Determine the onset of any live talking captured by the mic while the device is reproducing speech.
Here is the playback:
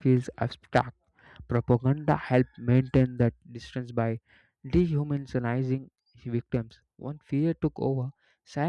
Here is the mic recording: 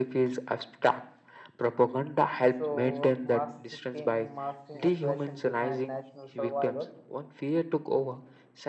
2.5 s

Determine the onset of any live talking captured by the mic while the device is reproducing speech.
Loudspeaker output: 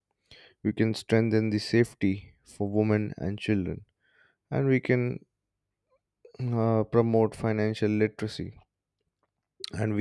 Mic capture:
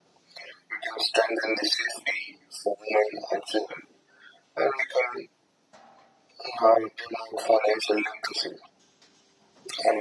none

